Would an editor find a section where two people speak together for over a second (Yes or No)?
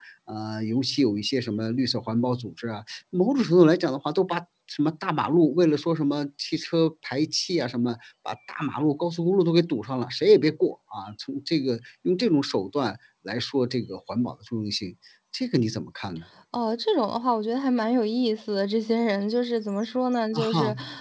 No